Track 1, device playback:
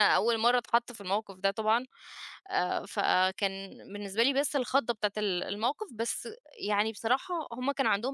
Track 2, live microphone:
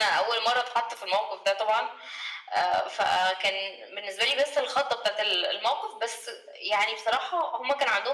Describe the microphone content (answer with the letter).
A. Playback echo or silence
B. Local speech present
A